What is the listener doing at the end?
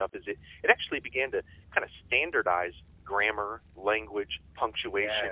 listening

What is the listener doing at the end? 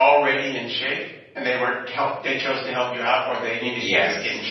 taking over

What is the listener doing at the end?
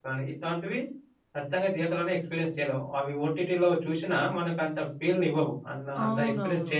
taking over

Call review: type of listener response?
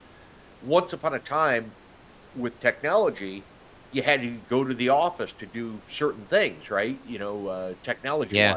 listening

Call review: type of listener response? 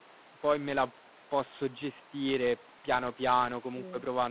listening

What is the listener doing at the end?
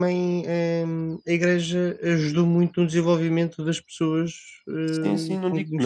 taking over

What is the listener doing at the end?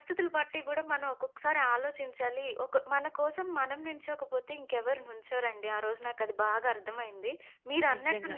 listening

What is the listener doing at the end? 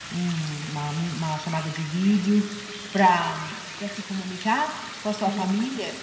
listening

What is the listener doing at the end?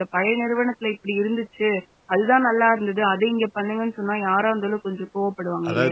taking over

